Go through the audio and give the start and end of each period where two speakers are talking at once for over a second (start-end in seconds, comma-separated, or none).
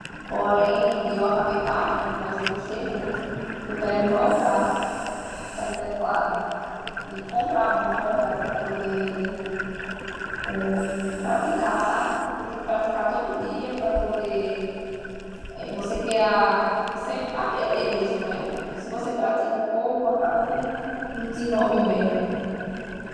none